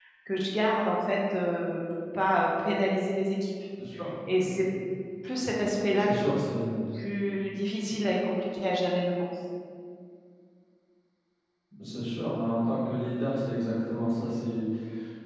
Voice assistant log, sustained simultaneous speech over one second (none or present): none